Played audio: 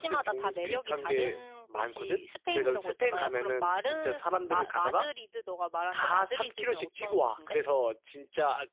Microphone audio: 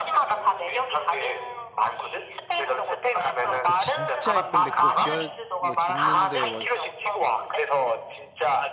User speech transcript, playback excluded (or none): 와, 그 진짜 예쁜데 그거 지어 뭐 짓는데 뭐